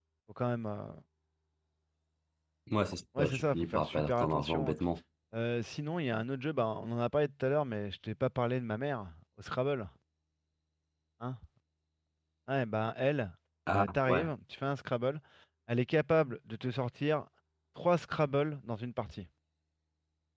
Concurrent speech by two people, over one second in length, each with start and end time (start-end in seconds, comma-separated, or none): 3.2-4.8